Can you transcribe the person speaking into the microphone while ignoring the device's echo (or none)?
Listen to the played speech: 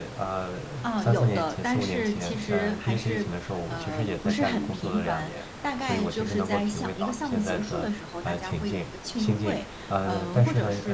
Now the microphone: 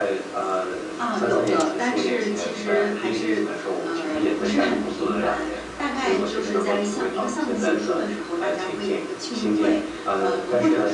none